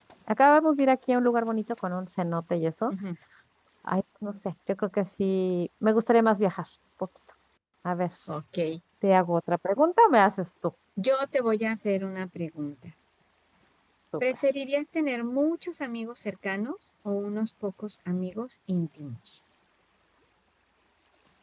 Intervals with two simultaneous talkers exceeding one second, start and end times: none

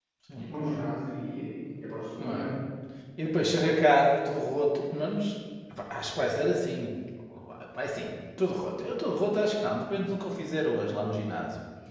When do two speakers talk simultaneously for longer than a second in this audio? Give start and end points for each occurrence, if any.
none

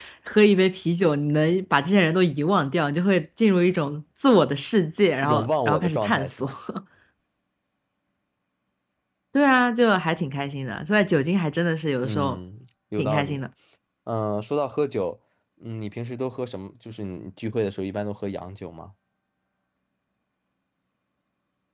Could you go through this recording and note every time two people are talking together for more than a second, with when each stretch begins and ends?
5.2-6.5

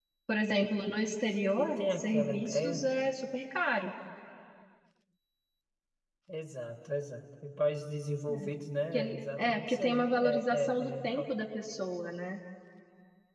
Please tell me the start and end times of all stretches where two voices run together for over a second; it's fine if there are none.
1.6-2.8, 8.9-11.3

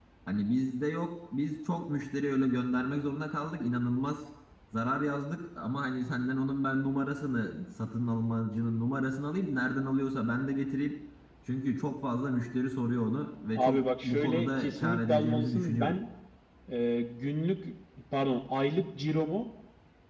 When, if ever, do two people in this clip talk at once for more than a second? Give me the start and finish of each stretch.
13.6-16.0

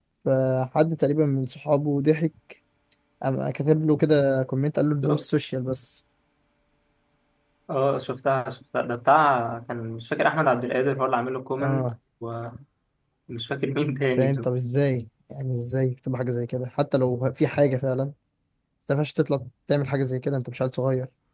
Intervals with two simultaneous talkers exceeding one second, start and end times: none

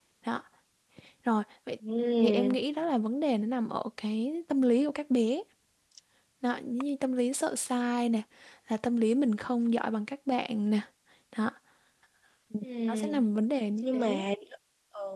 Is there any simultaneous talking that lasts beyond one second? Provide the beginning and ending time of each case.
none

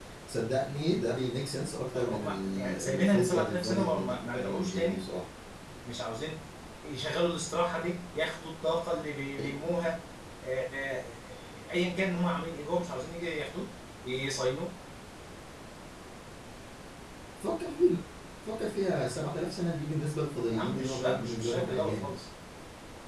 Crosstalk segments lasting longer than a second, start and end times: 1.9-5.0, 20.5-22.1

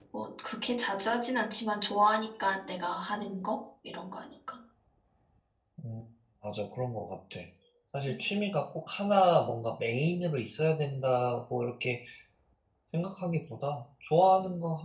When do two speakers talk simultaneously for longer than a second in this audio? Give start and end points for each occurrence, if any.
none

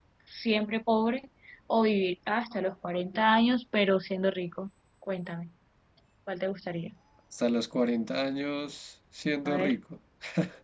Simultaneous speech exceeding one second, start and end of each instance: none

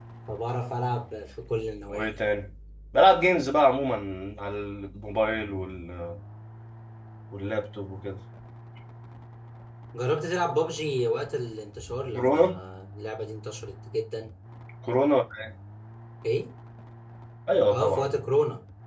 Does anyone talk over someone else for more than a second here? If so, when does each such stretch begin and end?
none

